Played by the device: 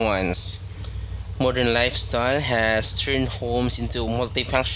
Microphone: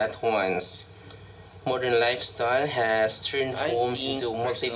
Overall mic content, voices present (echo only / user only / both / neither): both